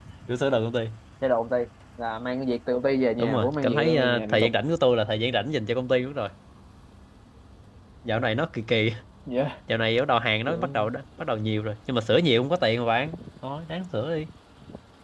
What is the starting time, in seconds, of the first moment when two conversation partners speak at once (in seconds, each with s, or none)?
3.2 s